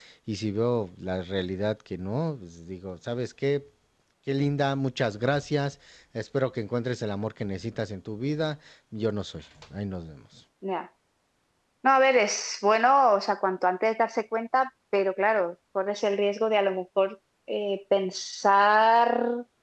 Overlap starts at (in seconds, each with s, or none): none